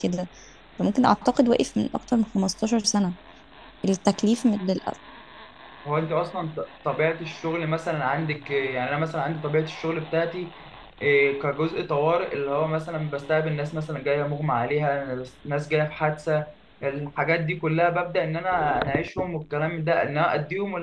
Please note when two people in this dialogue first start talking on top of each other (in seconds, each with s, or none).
none